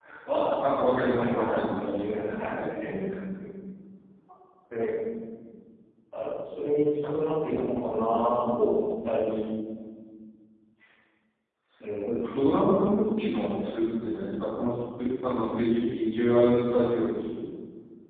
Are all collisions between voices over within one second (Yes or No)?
No